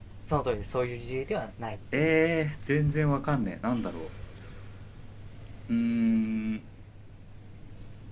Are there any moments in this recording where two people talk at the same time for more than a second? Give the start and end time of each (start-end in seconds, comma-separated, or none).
none